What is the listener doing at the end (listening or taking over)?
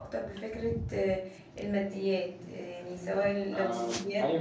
listening